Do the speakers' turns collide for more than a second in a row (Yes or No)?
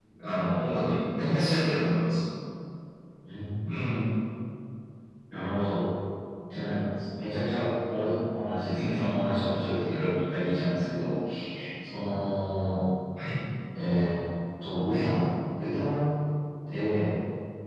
No